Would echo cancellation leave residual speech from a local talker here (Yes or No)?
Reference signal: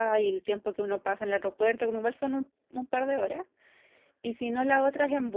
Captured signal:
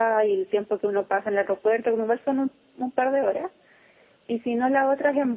No